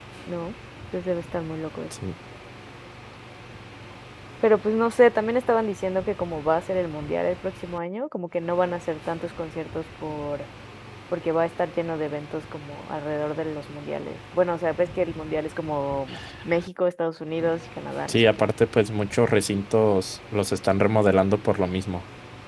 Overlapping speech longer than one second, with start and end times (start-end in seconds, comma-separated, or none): none